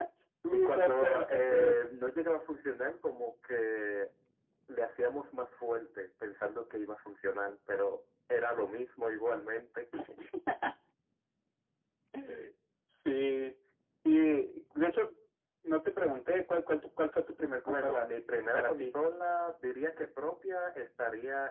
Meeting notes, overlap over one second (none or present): present